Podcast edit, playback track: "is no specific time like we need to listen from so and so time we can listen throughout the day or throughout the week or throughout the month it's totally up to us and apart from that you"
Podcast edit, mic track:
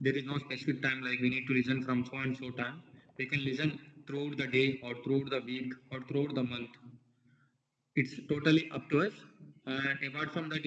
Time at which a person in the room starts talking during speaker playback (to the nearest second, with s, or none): none